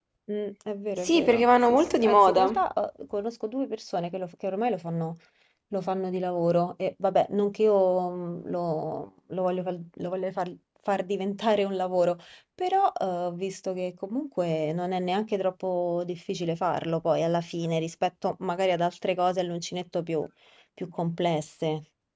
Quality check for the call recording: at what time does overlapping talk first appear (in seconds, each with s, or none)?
1.0 s